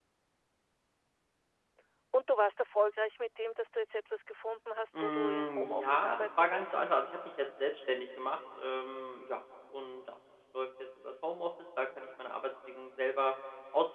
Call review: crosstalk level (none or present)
present